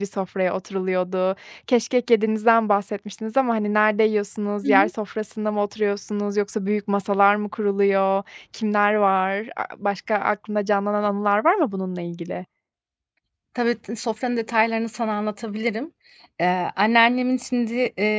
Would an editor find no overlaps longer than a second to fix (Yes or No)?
Yes